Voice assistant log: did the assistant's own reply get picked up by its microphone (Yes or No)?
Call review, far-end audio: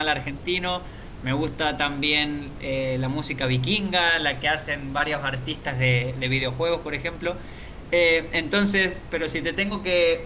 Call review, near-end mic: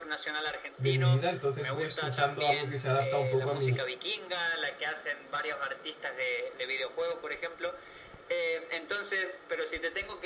Yes